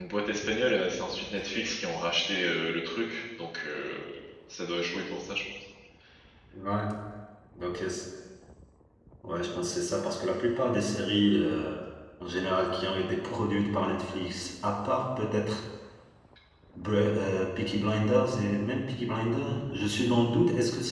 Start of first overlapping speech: none

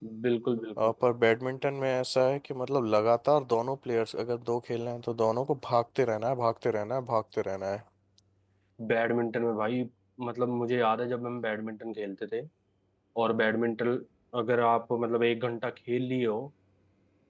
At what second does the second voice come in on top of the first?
none

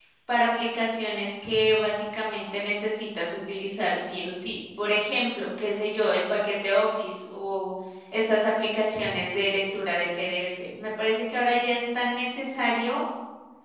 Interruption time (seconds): none

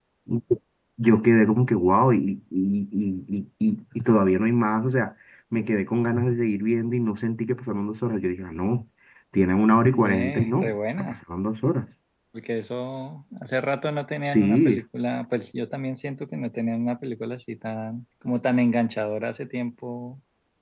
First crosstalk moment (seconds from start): 9.9 s

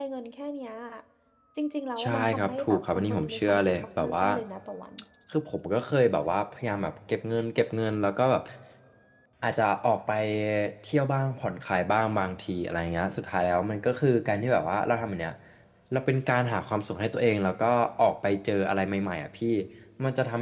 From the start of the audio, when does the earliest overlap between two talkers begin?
2.0 s

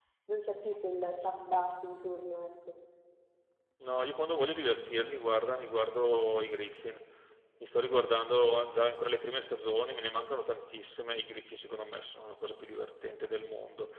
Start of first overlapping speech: none

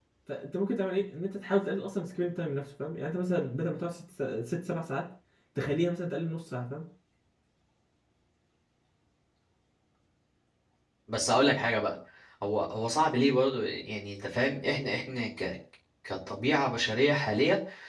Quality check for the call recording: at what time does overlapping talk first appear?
none

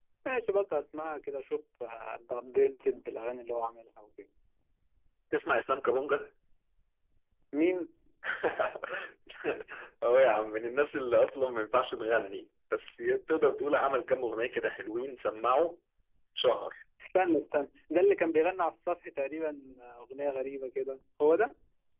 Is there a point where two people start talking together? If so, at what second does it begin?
none

